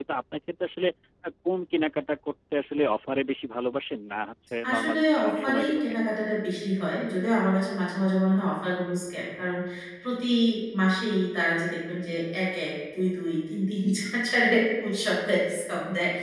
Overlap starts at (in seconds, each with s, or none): 4.6 s